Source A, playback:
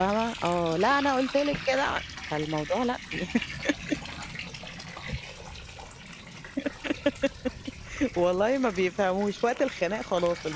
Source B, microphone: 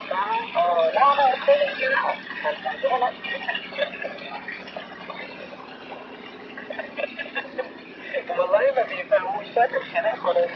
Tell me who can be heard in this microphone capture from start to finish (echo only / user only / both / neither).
echo only